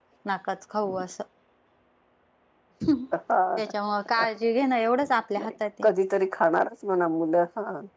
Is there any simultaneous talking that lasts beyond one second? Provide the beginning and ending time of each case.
none

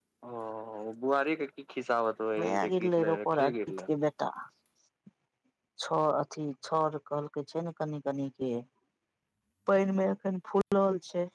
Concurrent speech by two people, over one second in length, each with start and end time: 2.4-3.8

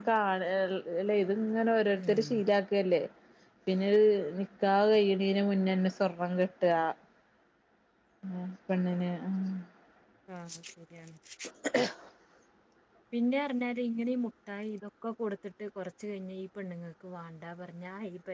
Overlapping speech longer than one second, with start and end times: none

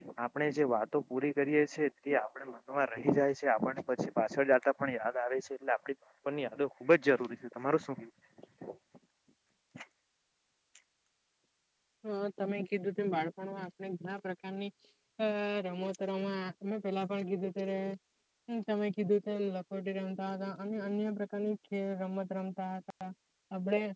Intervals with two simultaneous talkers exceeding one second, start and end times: none

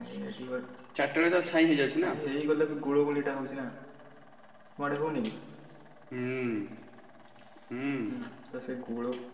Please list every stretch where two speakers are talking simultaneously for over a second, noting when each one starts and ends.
none

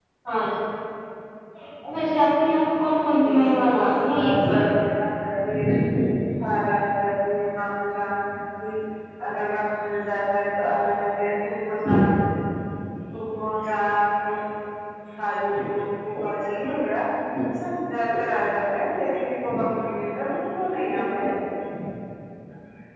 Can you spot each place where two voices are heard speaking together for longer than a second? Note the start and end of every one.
3.2-4.6

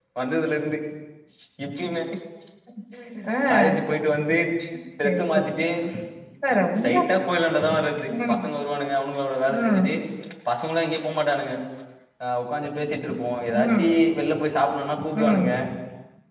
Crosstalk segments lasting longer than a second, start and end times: none

